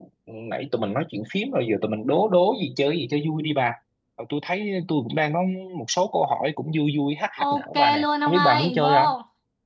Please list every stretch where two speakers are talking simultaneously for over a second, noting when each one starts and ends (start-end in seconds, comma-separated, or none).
7.4-9.1